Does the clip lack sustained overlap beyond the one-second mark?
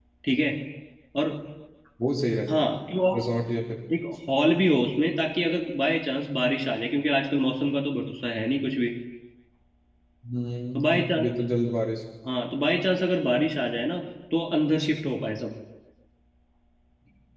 Yes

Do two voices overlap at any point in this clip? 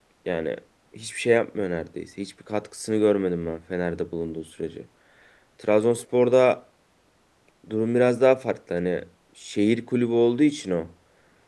No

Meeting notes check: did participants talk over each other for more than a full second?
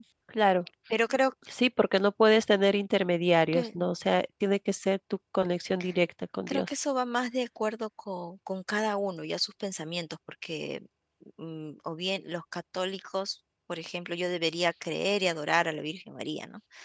No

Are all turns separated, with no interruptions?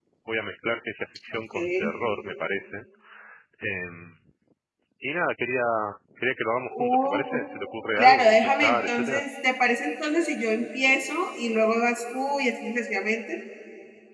No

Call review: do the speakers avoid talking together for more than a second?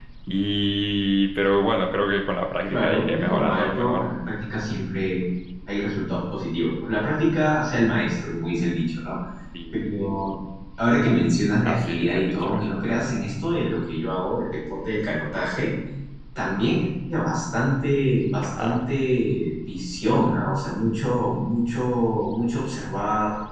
No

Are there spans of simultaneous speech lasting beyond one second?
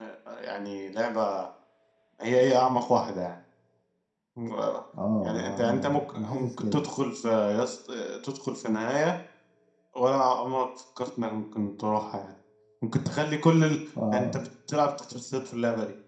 Yes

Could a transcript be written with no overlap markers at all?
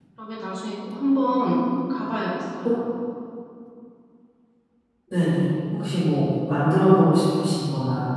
Yes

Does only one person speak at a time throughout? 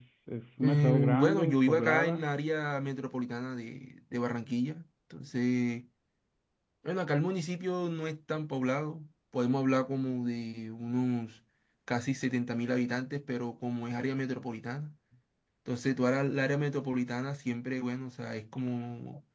No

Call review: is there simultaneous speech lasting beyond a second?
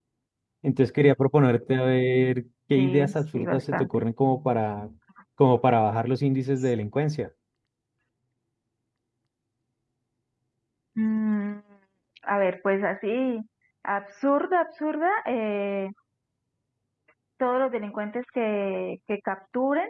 Yes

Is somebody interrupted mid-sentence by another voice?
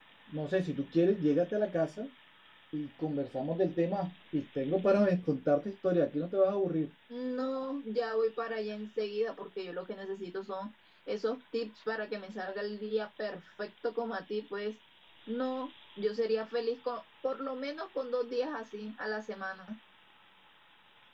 No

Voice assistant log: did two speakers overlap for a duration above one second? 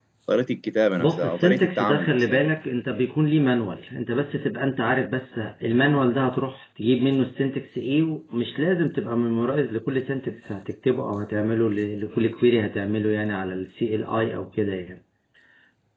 Yes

